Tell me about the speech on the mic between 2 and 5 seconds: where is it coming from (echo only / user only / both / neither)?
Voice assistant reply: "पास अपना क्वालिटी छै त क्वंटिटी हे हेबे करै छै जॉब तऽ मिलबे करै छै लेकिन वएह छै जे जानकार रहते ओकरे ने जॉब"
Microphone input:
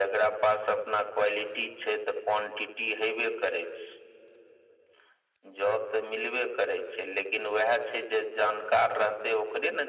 echo only